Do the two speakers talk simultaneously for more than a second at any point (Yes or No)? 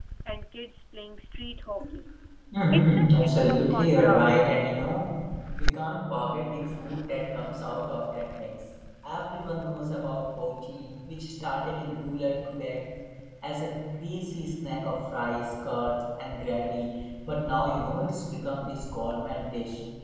Yes